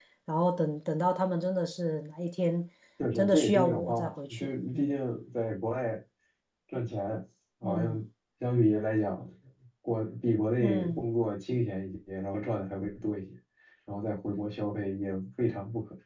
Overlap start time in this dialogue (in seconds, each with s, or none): 3.2 s